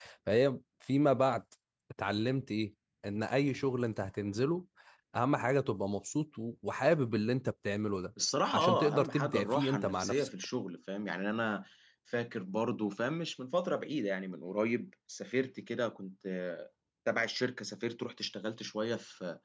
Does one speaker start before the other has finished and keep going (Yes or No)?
Yes